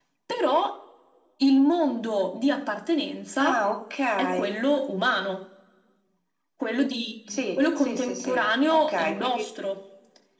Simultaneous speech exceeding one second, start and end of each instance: 7.3-9.5

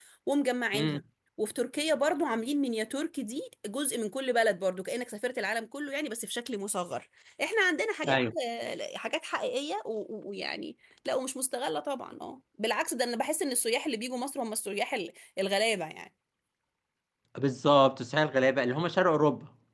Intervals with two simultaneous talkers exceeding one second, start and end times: none

